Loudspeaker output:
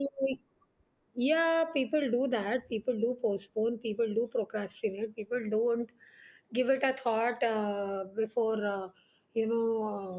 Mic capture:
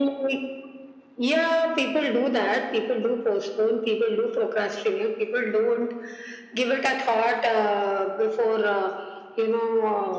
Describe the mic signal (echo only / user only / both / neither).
echo only